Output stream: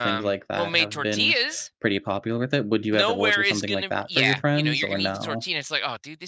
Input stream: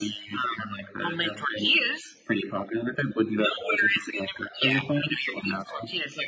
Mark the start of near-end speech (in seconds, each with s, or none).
none